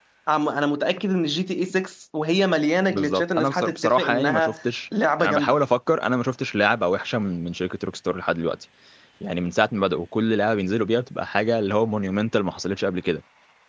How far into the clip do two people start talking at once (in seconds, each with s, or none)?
2.9 s